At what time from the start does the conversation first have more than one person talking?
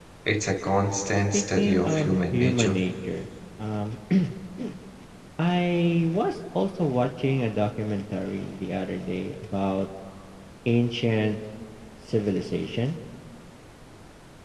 1.3 s

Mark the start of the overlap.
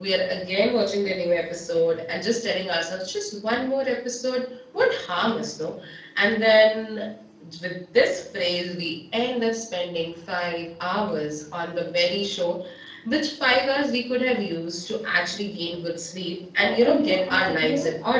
16.6 s

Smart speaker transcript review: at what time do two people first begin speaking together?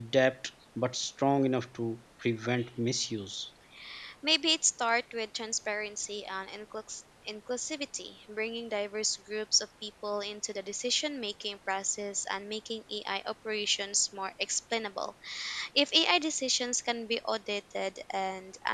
none

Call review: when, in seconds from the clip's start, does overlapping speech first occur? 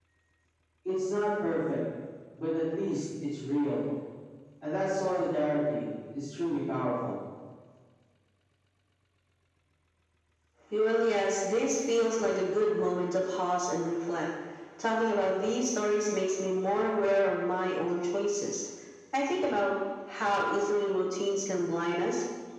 none

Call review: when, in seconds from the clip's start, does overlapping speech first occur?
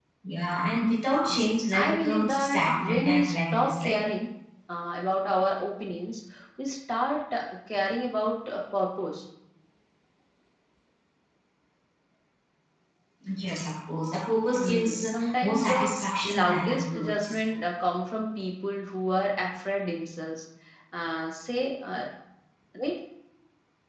1.3 s

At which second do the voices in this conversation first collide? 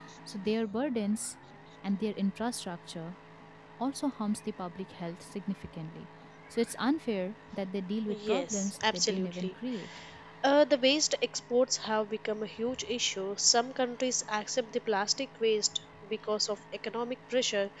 8.1 s

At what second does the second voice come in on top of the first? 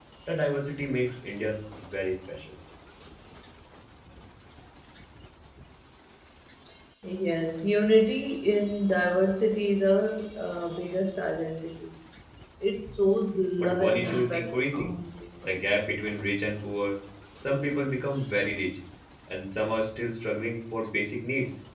13.6 s

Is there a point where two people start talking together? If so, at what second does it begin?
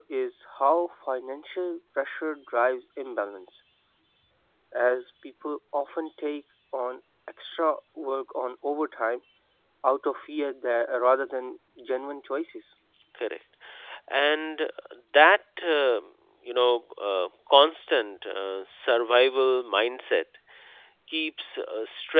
none

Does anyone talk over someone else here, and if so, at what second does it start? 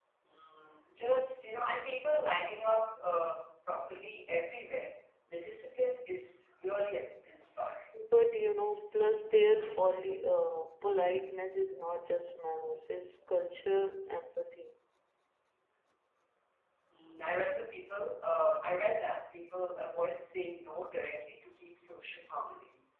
none

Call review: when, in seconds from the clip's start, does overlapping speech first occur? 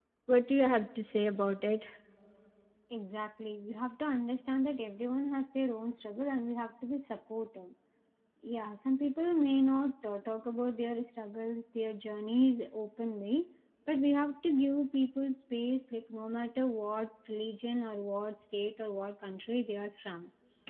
none

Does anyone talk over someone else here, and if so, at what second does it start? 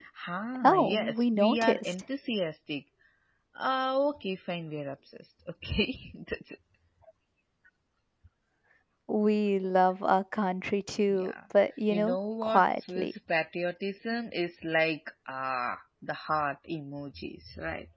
0.6 s

